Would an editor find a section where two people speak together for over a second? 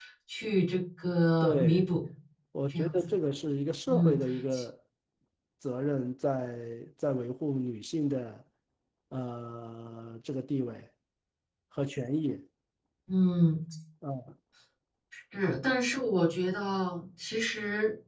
No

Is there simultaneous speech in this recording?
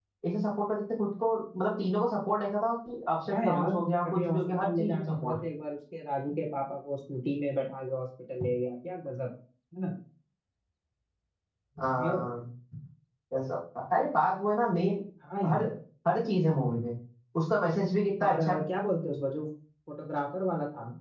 Yes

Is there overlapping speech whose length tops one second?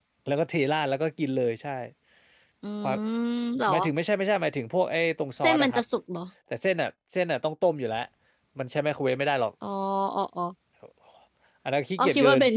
No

